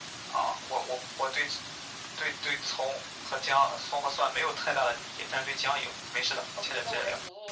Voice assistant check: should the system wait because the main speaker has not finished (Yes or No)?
No